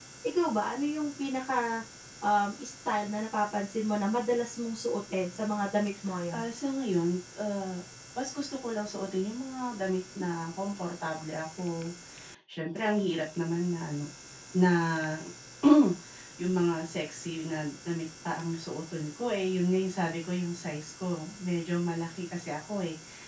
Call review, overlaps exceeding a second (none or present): none